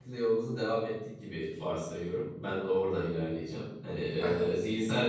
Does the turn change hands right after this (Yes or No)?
No